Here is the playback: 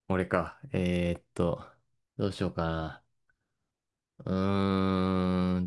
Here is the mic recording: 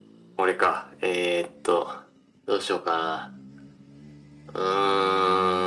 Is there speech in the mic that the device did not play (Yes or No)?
No